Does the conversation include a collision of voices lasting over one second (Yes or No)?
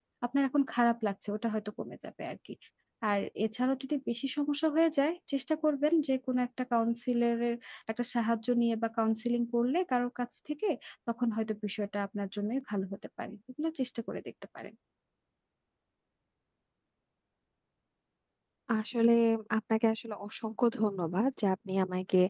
No